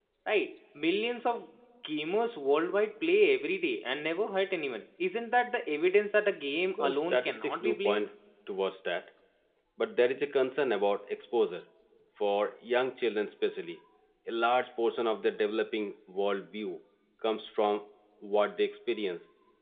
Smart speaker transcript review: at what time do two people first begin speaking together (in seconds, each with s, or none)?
6.8 s